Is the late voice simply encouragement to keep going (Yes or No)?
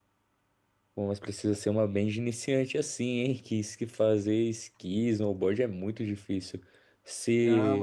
No